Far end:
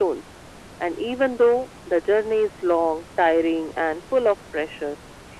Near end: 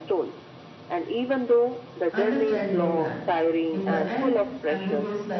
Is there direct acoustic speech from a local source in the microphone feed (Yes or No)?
Yes